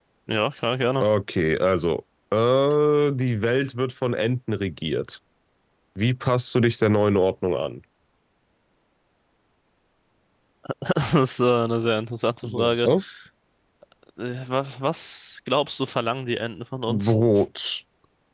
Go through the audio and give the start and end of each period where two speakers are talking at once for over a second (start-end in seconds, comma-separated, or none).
none